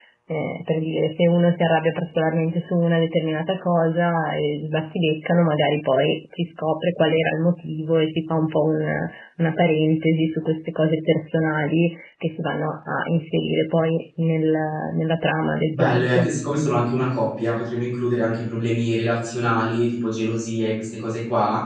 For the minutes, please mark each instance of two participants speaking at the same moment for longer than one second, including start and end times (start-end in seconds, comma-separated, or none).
none